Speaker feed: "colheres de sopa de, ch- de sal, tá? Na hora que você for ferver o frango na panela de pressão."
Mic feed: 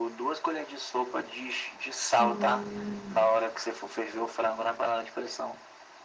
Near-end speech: present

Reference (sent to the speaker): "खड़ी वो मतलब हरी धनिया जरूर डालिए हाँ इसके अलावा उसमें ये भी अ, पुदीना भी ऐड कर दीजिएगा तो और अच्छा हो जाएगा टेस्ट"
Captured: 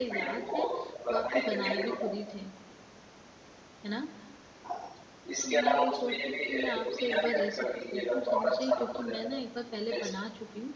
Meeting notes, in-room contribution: present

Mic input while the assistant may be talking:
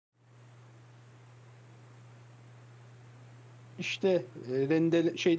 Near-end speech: present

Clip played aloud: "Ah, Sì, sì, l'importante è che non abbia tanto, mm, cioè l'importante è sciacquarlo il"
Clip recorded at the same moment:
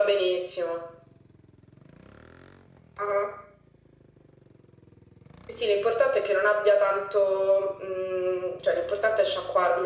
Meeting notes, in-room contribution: none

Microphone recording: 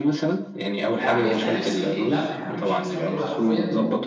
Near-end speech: present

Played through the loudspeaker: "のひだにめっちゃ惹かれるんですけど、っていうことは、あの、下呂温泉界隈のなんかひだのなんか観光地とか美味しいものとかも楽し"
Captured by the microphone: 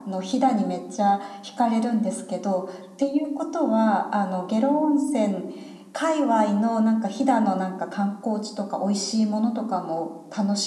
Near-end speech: none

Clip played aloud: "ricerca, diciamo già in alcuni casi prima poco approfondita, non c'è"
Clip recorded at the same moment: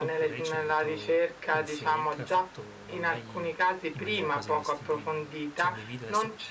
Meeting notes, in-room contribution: present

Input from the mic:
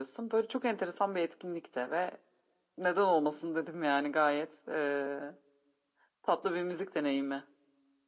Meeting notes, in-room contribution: none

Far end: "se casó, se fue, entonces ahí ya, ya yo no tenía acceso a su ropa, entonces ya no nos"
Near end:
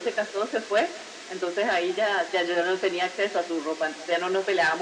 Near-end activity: none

